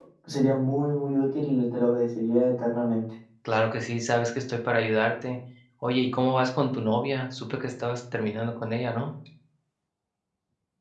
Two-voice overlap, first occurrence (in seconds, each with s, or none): none